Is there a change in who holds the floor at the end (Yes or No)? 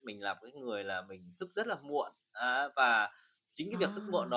No